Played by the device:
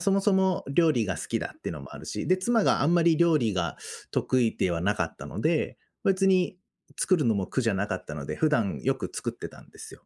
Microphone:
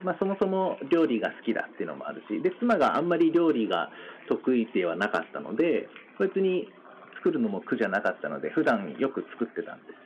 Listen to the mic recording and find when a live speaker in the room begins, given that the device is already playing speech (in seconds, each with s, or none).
none